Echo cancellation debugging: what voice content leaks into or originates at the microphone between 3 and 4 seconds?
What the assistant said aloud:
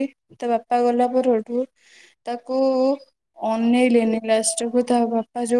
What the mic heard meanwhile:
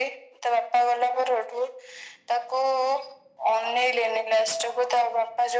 echo only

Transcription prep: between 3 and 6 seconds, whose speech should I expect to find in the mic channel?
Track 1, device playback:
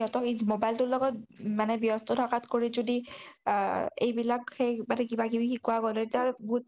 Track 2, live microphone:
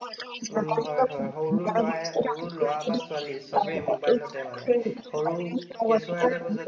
both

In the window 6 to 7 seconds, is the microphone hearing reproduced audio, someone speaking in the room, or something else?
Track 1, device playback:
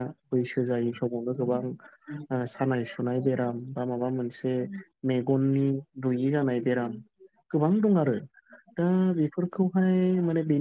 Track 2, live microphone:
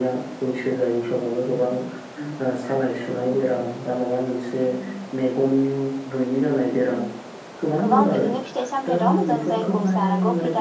echo only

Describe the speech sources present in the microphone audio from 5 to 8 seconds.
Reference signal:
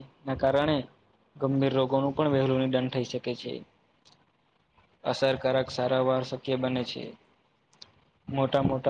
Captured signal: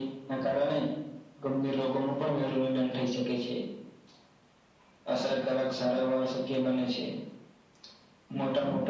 echo only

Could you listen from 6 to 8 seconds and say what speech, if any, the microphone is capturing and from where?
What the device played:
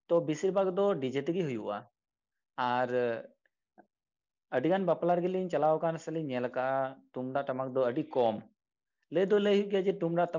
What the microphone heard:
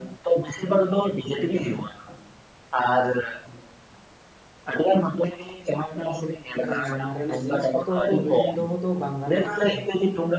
both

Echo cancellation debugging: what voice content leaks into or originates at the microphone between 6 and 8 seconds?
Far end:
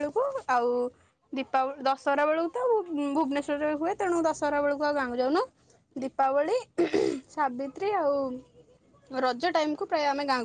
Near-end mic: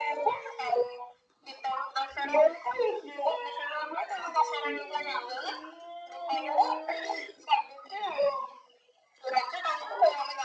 echo only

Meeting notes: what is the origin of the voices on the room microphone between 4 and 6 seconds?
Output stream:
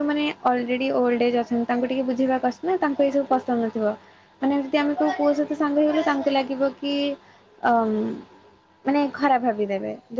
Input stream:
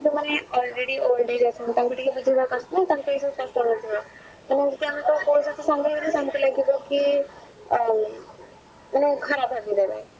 echo only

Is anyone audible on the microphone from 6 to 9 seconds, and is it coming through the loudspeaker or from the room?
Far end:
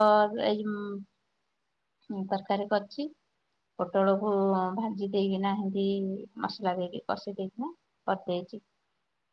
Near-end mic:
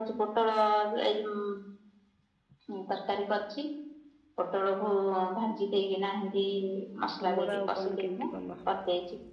both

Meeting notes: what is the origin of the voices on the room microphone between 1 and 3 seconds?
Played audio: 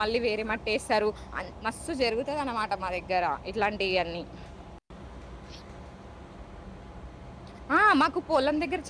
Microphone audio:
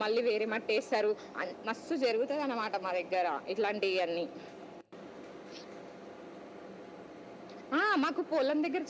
echo only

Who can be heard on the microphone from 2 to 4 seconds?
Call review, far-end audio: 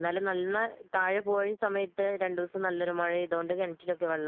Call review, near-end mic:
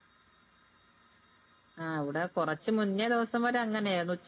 user only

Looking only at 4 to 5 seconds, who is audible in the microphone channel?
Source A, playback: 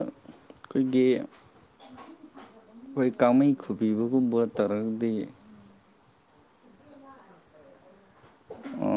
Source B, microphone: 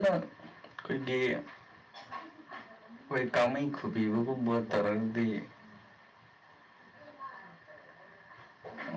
echo only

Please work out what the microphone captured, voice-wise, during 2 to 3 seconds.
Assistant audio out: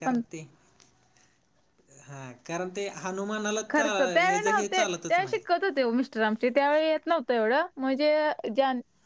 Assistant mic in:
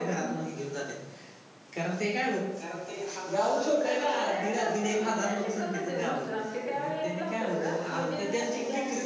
both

